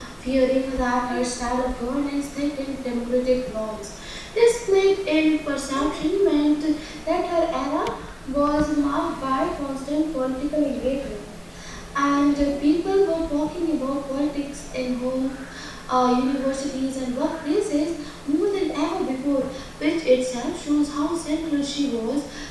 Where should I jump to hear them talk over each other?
none

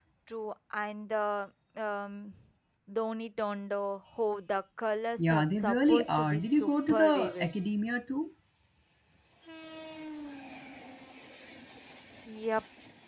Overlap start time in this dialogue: 5.2 s

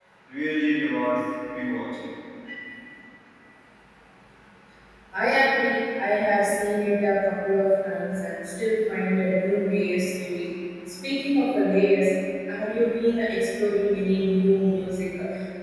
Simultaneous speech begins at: none

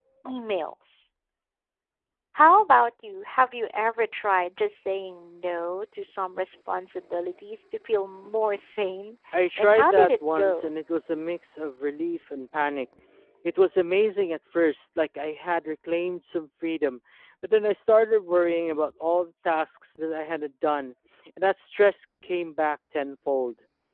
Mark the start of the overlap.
9.3 s

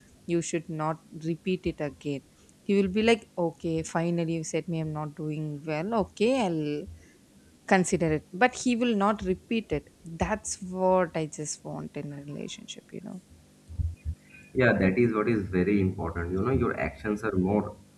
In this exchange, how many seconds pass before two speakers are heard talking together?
none

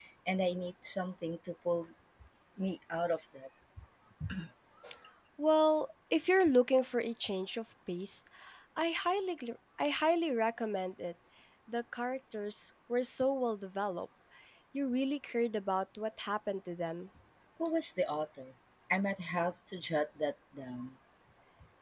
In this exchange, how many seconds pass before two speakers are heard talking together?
none

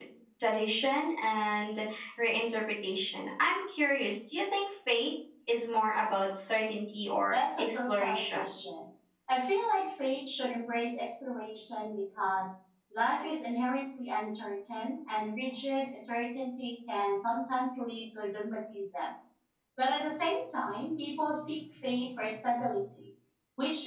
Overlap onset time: 7.2 s

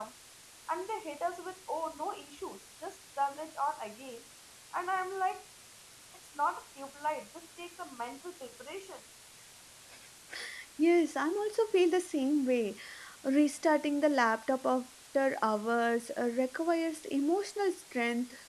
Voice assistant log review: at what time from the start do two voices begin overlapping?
none

